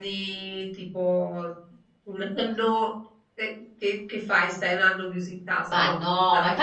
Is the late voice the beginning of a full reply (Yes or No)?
Yes